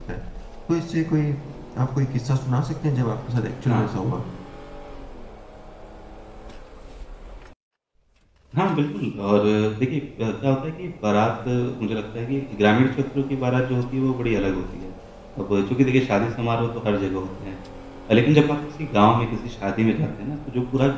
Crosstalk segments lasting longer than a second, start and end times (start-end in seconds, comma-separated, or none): none